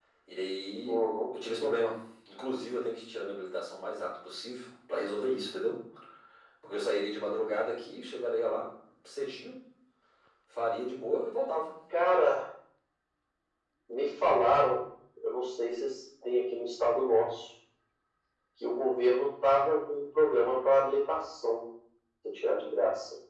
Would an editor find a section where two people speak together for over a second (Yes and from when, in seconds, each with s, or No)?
No